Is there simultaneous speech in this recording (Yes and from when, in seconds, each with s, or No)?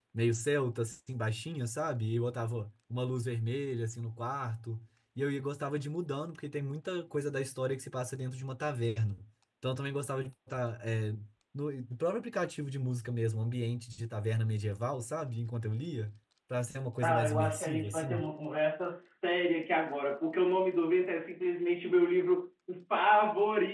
Yes, from 17.0 s